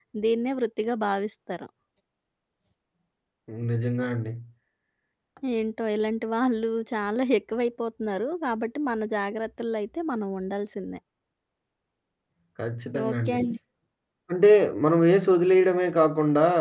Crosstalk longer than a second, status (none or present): none